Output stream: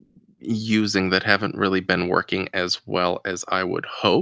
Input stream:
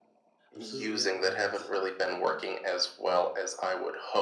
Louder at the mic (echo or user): echo